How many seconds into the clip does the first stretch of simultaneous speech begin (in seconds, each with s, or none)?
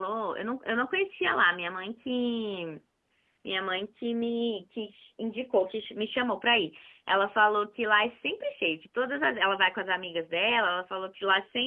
none